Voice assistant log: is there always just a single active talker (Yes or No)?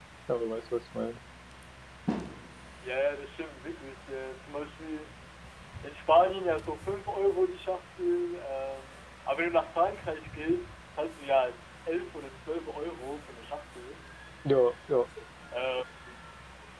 Yes